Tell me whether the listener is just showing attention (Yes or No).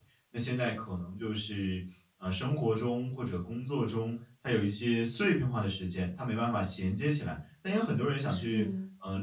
Yes